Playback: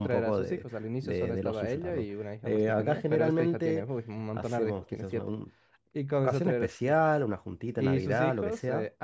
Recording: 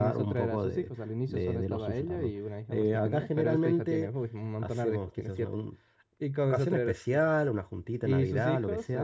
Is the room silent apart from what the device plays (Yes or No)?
Yes